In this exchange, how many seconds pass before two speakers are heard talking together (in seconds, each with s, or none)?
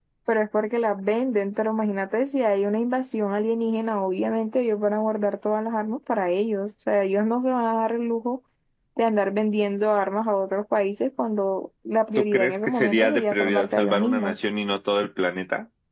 12.2 s